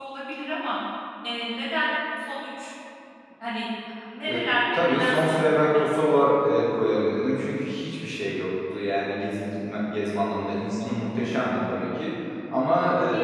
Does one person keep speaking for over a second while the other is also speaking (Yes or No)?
Yes